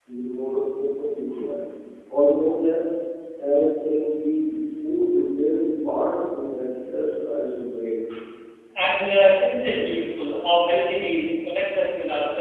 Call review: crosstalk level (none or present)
none